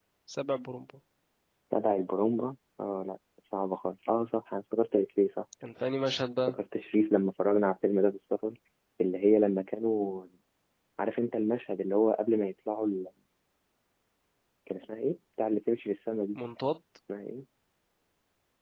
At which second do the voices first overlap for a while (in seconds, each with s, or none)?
none